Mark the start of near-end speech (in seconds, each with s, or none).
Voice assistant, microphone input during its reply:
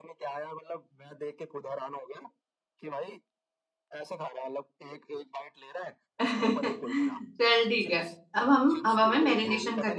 6.2 s